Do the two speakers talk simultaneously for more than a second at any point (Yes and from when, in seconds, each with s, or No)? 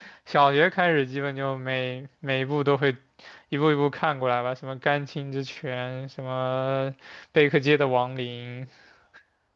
No